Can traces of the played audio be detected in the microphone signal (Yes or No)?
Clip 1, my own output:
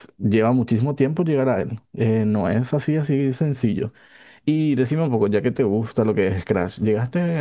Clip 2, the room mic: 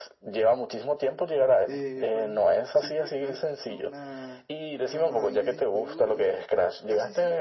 Yes